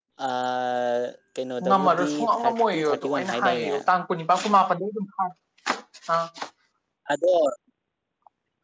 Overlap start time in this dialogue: 1.6 s

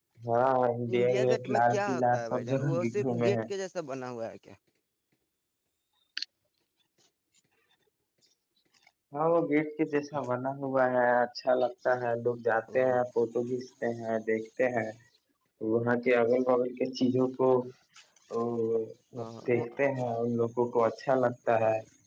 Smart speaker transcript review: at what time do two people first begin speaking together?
0.9 s

